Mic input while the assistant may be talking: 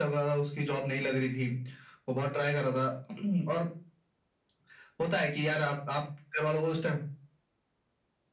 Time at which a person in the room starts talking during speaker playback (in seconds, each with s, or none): none